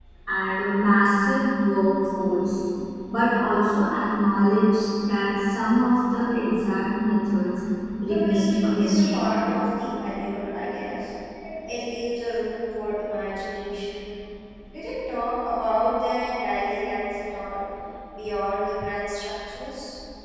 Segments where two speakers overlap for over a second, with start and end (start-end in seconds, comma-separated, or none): 8.0-9.3